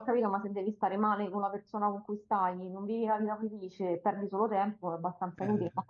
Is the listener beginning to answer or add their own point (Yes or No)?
No